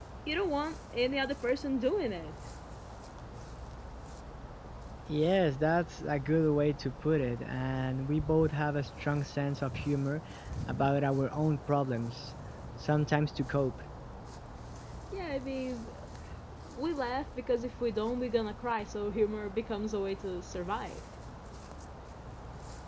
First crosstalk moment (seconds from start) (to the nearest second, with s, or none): none